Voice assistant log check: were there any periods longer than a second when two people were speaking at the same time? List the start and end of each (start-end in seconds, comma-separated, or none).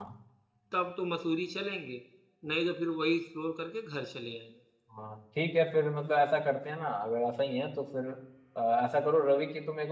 none